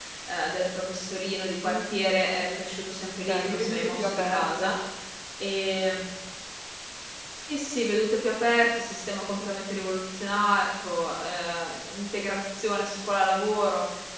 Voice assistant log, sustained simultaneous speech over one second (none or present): present